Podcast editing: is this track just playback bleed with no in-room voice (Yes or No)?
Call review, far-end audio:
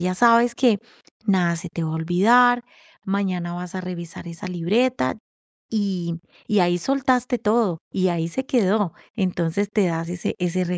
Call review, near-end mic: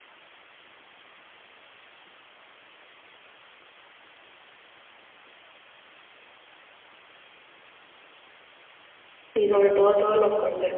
No